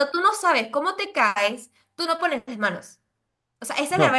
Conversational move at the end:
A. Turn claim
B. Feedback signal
B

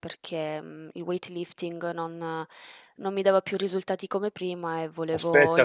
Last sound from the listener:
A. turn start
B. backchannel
A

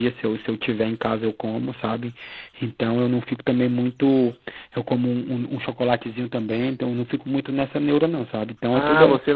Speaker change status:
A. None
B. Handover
B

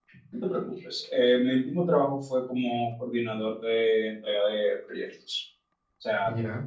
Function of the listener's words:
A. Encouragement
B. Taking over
A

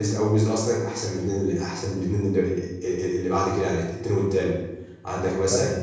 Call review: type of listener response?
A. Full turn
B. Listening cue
B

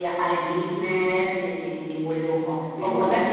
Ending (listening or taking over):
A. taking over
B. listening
B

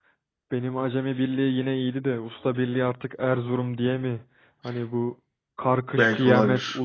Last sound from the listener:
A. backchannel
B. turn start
A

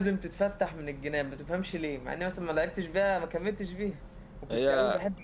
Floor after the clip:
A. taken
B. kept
B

